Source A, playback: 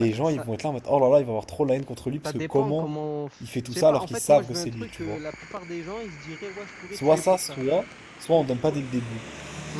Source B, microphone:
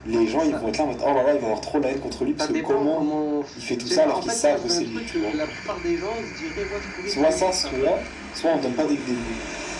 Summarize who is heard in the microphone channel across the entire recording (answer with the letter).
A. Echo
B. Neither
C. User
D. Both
A